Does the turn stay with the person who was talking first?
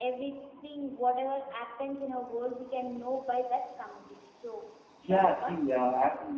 No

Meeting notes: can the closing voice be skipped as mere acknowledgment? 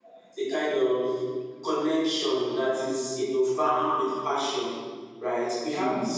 Yes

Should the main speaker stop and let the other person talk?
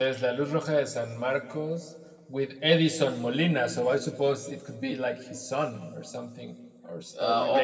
Yes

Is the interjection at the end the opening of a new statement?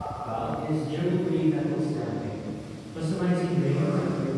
No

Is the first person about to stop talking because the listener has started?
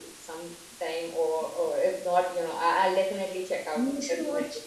Yes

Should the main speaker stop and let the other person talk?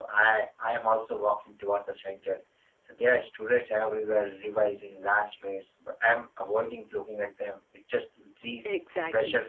Yes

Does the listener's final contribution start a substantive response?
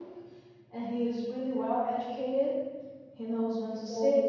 No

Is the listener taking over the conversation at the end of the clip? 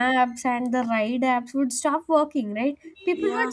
No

